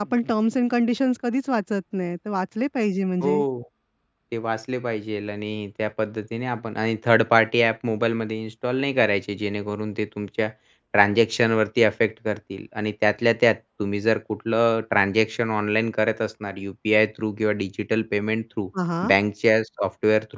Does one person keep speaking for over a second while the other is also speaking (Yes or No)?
No